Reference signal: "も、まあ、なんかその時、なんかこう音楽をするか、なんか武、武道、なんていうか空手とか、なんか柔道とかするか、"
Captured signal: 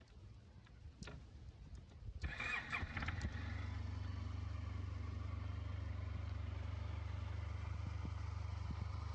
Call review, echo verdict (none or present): none